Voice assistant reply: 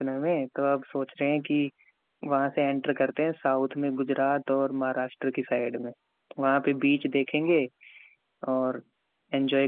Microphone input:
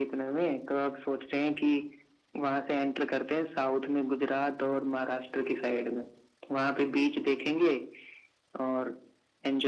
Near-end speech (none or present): none